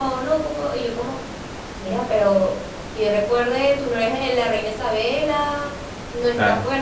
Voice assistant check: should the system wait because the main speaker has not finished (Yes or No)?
Yes